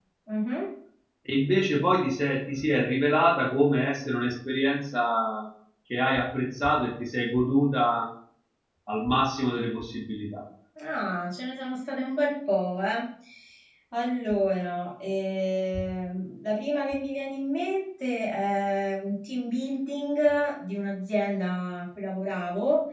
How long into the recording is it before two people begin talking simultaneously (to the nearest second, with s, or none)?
none